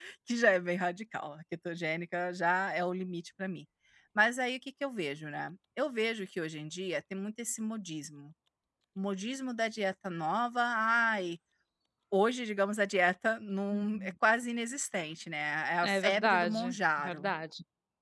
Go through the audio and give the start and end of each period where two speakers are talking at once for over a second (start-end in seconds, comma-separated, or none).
15.8-17.3